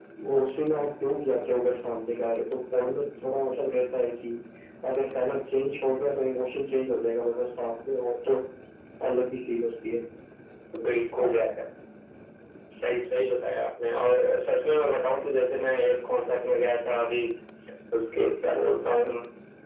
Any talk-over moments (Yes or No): No